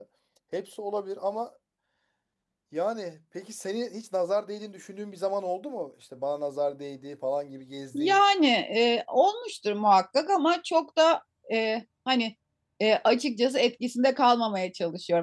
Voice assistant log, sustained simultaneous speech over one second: none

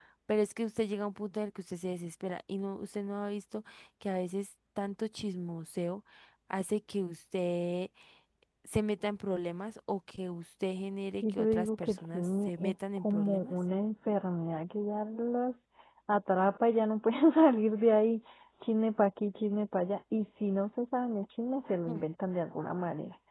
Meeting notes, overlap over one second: present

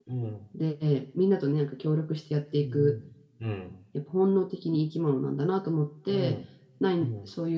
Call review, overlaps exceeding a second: none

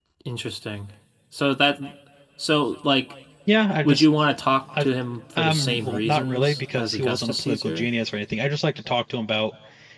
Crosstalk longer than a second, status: present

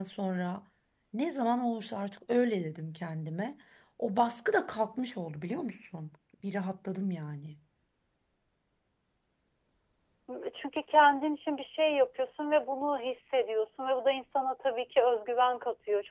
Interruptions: none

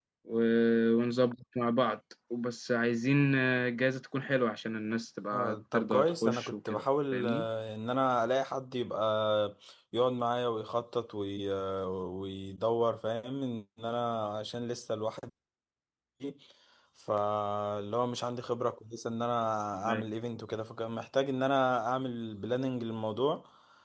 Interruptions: present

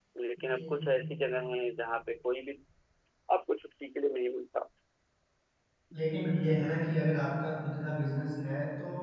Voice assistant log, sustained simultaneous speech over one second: none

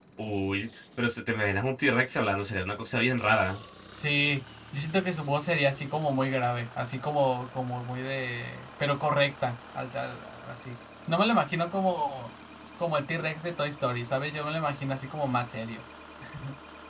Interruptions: none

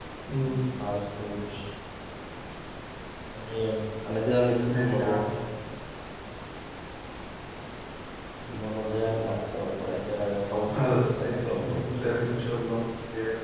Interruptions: present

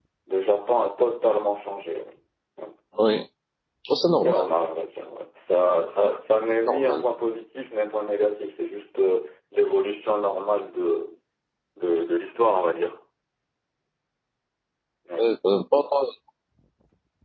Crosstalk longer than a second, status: none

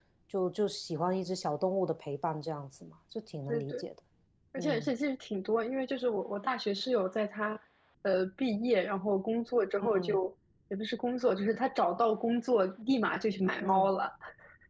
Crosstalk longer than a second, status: none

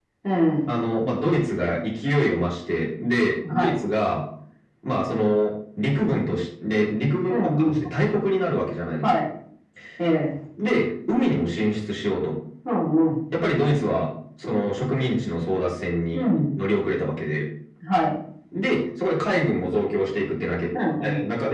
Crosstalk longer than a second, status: none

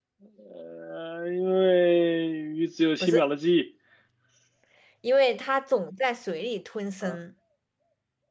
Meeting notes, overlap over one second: none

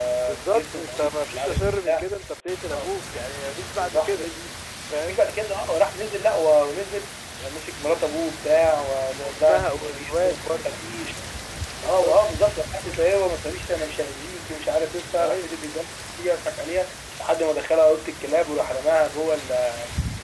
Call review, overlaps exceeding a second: present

